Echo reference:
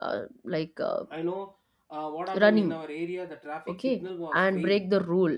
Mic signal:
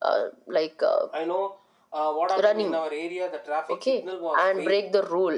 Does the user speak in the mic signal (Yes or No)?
No